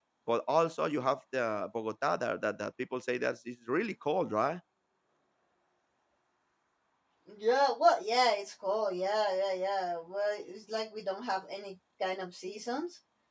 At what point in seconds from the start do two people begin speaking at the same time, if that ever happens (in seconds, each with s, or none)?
none